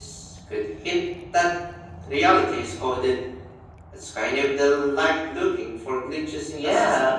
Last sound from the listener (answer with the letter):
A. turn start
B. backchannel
A